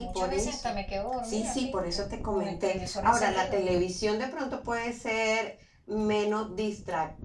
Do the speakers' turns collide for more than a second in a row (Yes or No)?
Yes